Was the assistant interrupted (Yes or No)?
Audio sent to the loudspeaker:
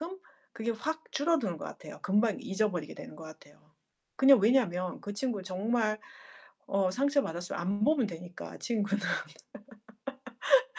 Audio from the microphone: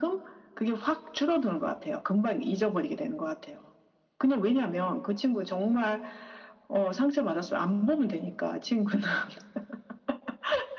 No